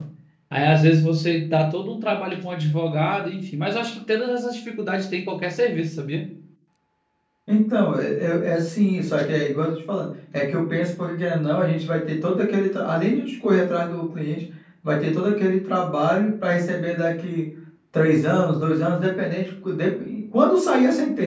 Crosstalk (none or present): none